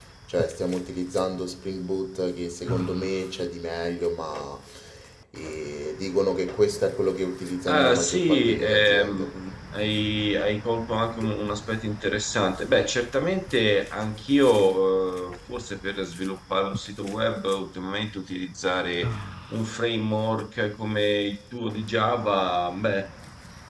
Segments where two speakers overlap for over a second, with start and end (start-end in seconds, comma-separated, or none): 7.7-9.4